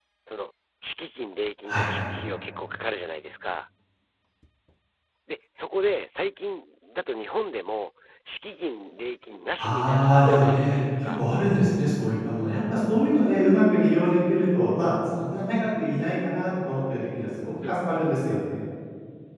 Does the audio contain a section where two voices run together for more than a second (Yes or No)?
Yes